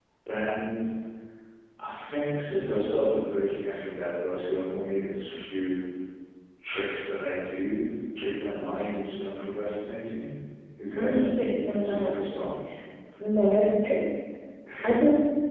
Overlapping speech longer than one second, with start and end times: 10.9-12.5

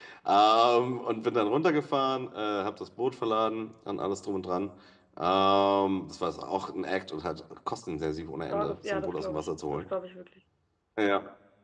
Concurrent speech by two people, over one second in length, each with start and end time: 8.5-9.8

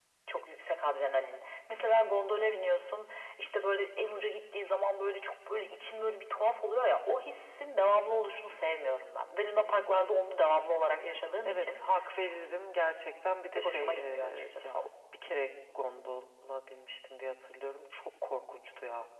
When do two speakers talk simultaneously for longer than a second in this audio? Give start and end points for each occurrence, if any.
13.5-14.8

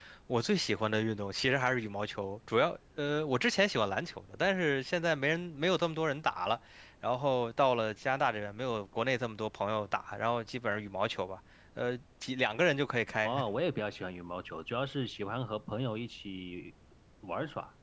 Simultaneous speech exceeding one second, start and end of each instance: none

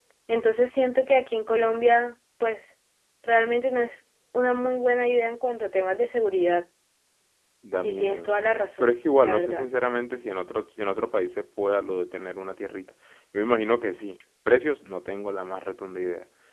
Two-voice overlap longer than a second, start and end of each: 7.8-9.7

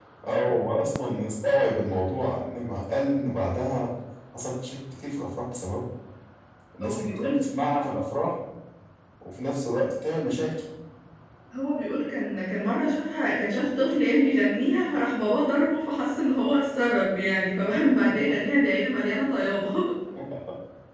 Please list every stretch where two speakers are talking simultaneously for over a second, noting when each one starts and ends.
none

